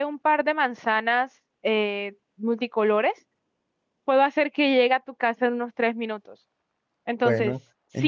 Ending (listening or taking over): taking over